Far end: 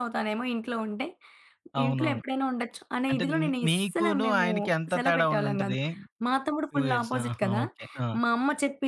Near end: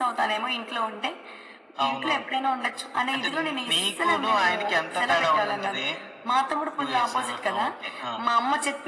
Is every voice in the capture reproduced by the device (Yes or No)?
Yes